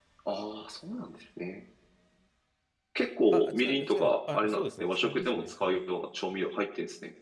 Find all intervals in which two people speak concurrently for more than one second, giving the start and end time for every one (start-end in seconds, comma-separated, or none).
3.3-5.8